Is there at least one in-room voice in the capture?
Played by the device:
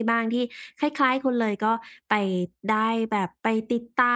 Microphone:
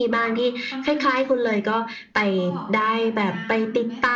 Yes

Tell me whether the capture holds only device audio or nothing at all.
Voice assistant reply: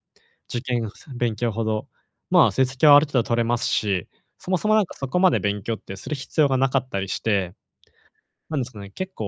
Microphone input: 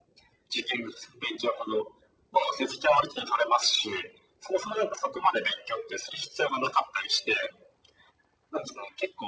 Yes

